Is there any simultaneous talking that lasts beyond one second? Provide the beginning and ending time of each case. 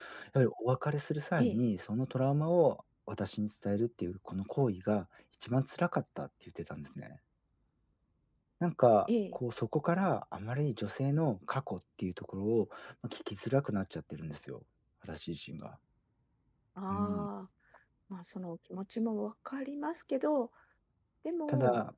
none

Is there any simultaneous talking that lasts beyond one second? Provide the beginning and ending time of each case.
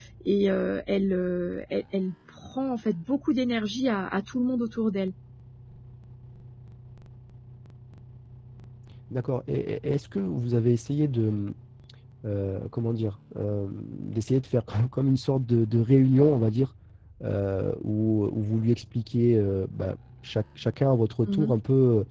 none

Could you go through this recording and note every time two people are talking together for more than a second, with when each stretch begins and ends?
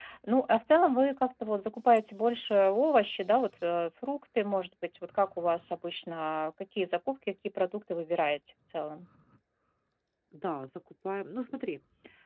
none

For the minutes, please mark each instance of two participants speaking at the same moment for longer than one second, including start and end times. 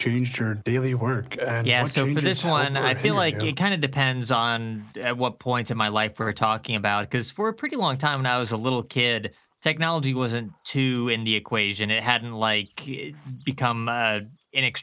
1.6-3.5

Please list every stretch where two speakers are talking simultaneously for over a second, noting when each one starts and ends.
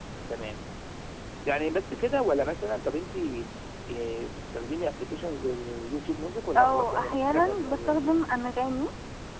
6.6-8.3

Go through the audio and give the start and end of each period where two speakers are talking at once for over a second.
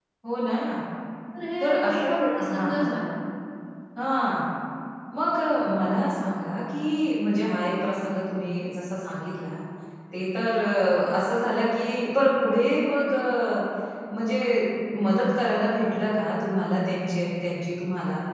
1.6-2.9

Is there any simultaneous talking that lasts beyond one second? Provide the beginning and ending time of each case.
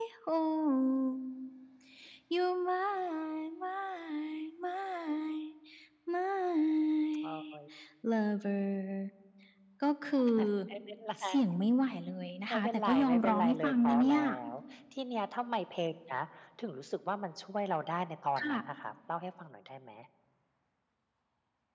12.5-14.2

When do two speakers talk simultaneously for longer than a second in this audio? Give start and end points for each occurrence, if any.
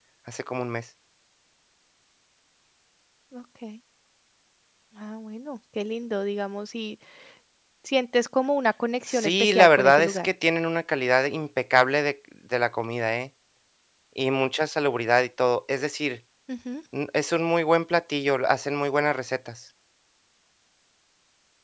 9.1-10.3

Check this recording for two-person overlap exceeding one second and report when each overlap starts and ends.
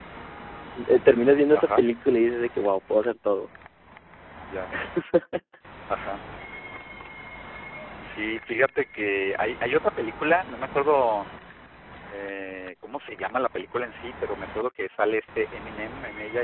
none

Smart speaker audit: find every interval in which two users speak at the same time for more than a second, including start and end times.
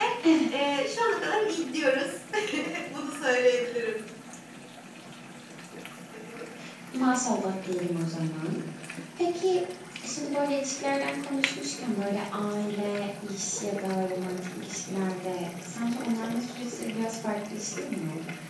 none

